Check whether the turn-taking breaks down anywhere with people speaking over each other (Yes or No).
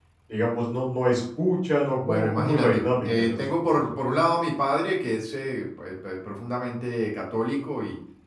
Yes